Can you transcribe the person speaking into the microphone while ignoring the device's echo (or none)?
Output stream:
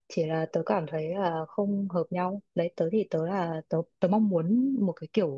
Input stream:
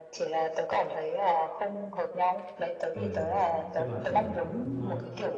Ừm, tức là kiểu mình cũng